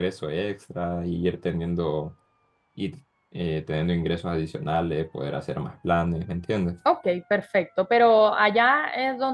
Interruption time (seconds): none

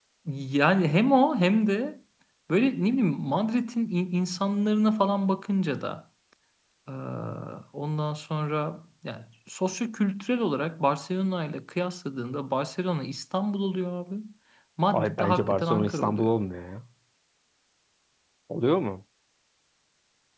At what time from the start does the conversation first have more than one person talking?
15 s

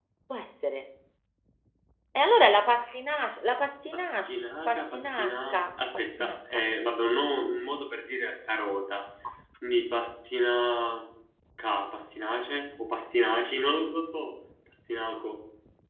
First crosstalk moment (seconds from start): 4 s

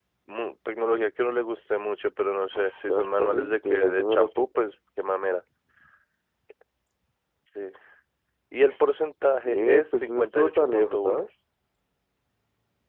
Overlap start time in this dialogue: 3 s

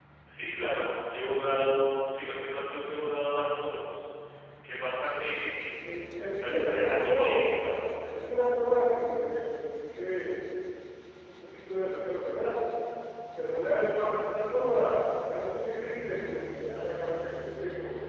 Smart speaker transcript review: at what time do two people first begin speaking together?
6 s

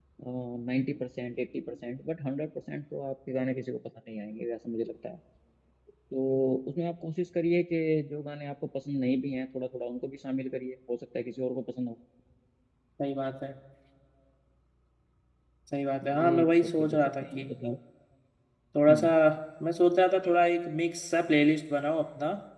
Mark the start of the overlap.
16 s

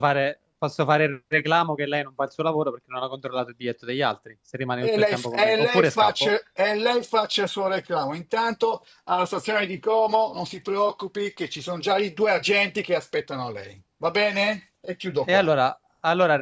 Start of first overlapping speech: 5 s

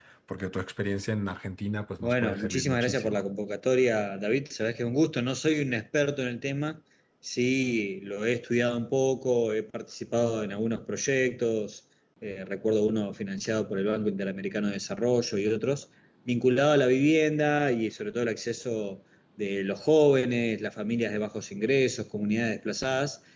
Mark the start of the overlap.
2 s

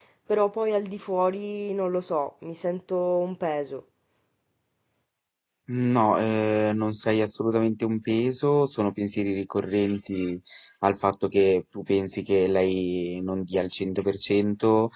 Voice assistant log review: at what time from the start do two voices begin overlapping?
none

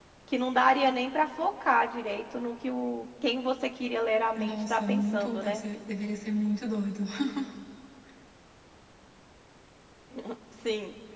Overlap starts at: 4 s

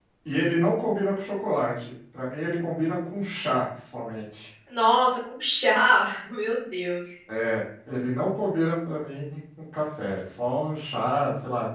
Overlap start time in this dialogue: none

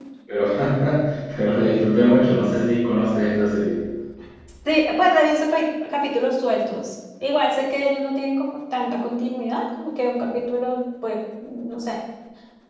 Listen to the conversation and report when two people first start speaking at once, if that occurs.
none

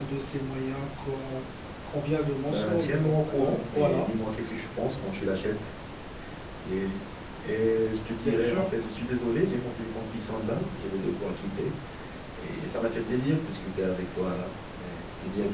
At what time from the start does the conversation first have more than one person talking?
2 s

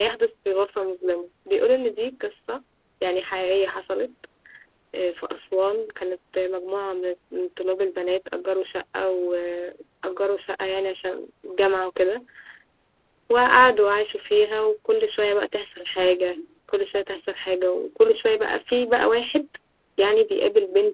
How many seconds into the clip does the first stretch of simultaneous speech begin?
none

